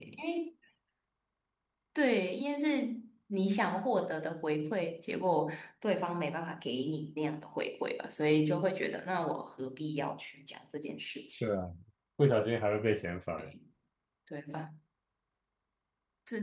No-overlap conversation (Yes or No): Yes